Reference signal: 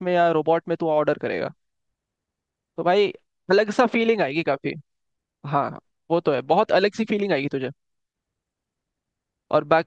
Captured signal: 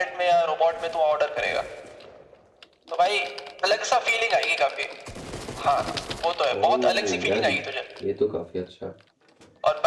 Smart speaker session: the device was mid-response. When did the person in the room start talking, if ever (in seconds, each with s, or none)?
6.5 s